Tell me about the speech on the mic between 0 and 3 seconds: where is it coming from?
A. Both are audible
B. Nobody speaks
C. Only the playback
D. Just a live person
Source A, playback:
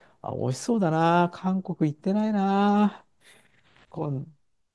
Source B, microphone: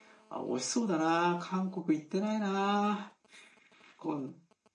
C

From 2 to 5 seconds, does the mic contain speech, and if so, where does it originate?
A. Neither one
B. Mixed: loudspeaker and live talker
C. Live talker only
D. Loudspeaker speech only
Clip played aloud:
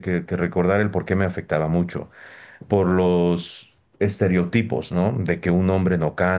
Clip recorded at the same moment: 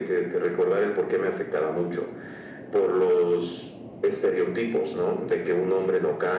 D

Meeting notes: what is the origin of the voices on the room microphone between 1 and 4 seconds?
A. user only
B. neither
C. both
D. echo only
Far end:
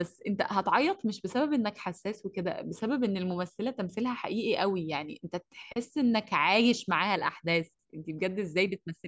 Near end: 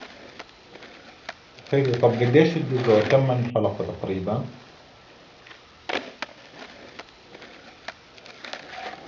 A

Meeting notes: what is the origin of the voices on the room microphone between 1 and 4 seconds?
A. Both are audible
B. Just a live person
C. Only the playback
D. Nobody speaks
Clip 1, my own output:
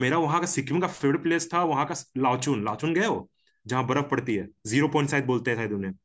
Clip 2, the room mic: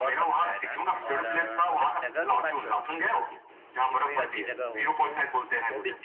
A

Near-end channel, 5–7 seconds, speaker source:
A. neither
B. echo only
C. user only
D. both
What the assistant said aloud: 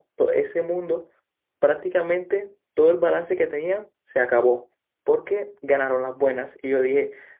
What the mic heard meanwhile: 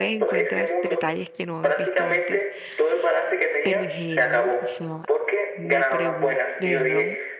D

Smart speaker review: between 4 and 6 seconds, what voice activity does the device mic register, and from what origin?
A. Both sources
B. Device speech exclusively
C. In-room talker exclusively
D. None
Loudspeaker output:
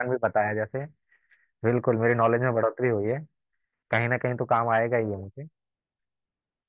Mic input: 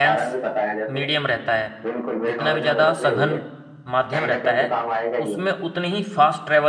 A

